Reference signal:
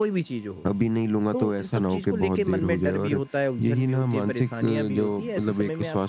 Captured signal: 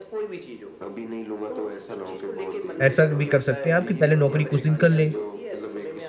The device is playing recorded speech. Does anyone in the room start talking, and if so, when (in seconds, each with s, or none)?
2.8 s